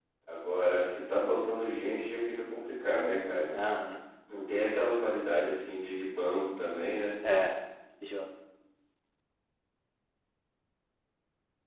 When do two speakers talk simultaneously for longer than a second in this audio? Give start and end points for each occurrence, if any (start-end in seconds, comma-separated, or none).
none